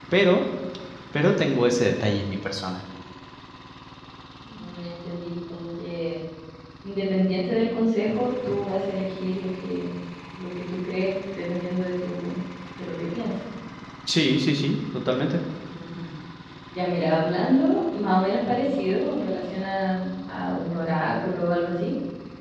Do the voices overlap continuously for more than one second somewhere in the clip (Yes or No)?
No